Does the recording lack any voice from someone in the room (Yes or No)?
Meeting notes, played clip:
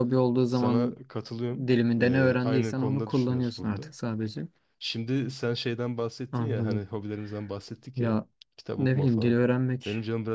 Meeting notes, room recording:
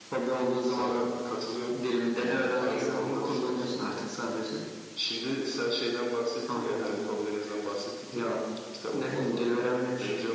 Yes